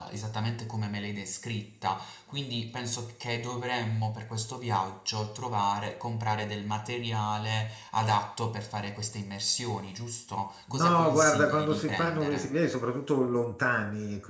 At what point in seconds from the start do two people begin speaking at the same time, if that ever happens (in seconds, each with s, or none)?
10.7 s